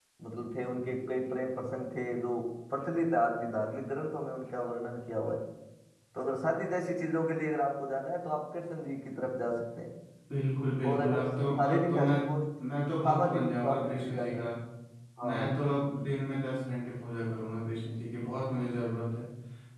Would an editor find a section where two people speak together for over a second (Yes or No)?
Yes